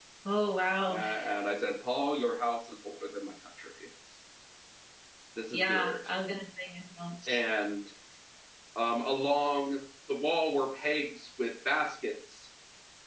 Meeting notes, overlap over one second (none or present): none